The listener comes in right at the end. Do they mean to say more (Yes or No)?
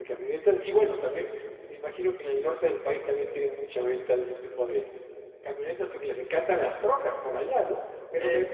No